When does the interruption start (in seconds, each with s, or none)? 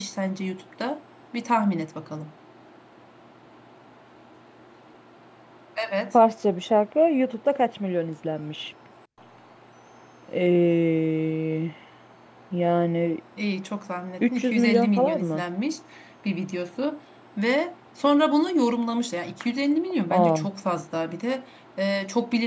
14.2 s